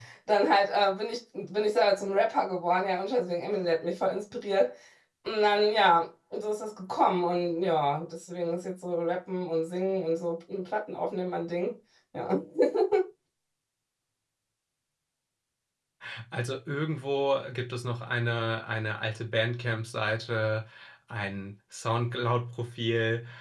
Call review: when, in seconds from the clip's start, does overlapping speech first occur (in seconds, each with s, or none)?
none